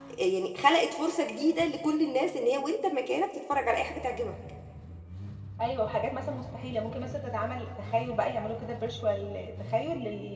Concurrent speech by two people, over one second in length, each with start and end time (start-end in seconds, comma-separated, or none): none